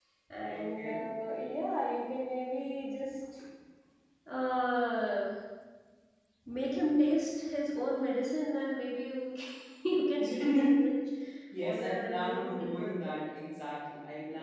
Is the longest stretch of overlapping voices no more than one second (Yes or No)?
No